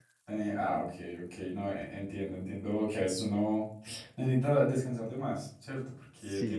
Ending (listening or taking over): listening